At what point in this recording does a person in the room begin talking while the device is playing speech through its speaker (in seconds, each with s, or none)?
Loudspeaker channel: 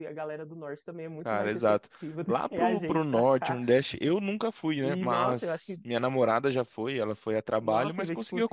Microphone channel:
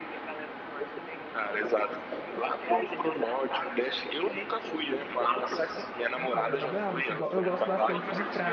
6.2 s